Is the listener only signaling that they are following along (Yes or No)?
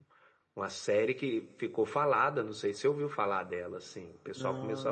Yes